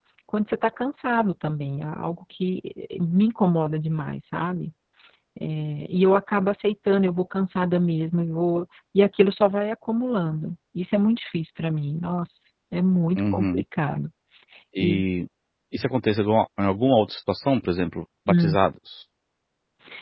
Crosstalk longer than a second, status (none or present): none